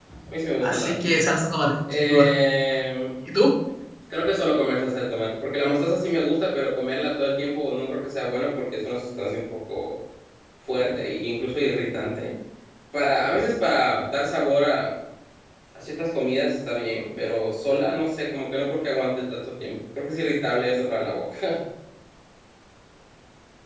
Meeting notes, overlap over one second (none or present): none